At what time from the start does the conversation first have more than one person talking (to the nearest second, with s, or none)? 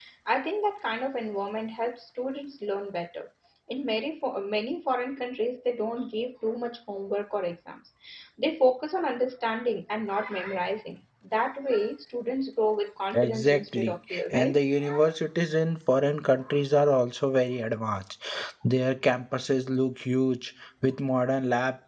13 s